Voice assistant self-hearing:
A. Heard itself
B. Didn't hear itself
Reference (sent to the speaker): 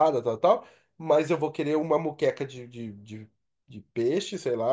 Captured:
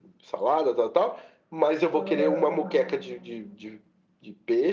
A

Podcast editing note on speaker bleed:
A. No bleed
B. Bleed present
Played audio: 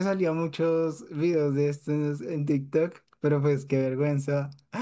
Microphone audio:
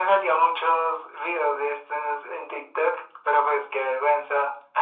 B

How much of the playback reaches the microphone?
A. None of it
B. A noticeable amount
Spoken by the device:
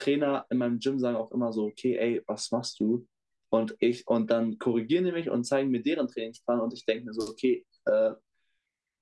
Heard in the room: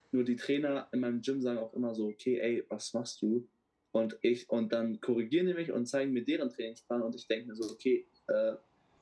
B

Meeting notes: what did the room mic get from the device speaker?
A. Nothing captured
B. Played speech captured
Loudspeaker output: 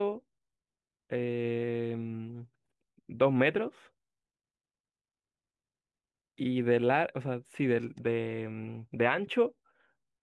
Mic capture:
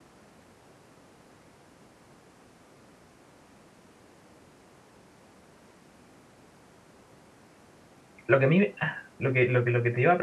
A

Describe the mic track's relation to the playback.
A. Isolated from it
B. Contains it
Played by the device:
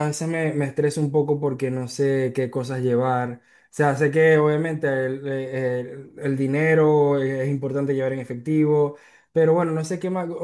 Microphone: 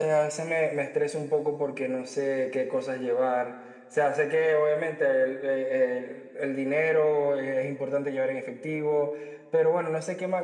B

